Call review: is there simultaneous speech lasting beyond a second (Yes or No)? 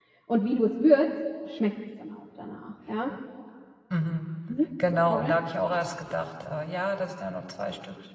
No